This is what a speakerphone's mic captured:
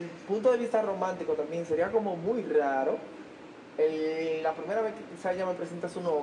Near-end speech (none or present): none